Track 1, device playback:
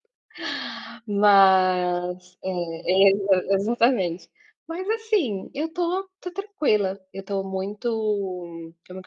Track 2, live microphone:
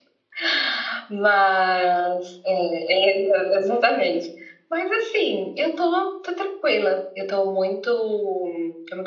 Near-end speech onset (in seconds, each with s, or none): none